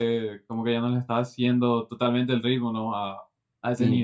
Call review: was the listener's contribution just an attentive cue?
No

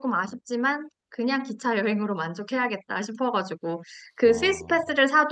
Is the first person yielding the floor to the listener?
No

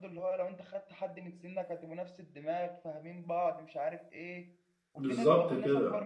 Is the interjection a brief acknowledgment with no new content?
Yes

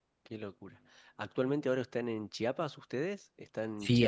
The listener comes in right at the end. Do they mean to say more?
Yes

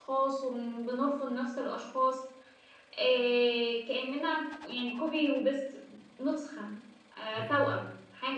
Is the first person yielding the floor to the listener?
No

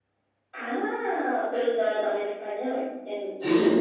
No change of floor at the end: No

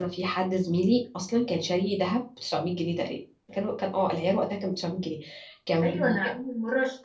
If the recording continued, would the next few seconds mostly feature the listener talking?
Yes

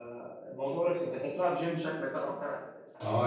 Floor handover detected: Yes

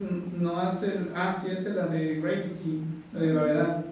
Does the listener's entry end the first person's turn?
Yes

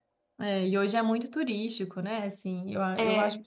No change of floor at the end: Yes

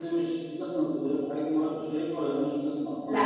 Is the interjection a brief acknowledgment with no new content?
No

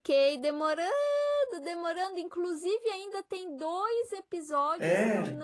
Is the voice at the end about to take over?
No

